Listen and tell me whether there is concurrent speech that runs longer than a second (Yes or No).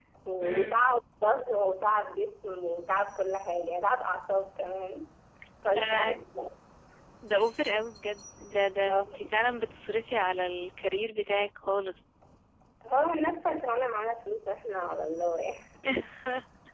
No